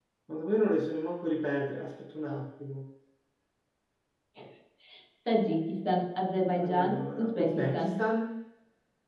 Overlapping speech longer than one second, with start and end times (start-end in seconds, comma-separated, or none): 6.6-8.0